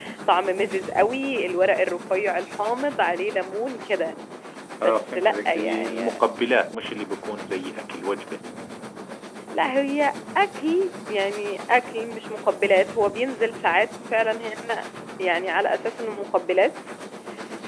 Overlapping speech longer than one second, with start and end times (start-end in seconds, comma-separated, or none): 4.8-6.2